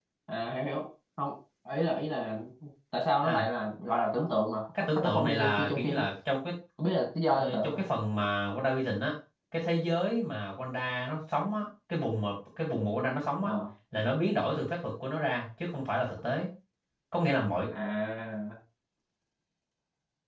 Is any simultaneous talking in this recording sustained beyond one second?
Yes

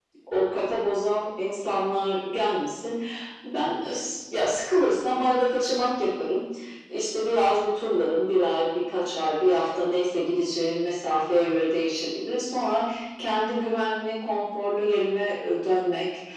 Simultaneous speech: No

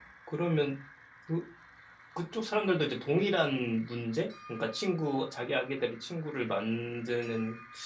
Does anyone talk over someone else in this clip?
No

